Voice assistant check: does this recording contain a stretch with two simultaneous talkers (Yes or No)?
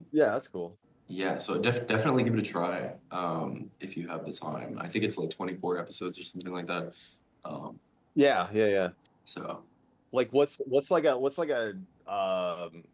No